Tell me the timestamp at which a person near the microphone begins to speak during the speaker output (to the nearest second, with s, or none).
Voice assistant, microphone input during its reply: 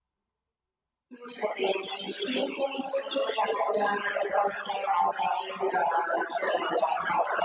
none